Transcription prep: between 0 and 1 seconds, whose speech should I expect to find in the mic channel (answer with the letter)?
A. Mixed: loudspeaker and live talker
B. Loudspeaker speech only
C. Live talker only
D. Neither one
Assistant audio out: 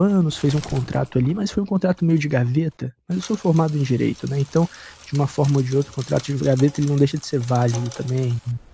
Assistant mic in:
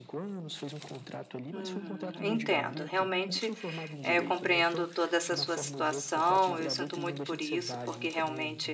B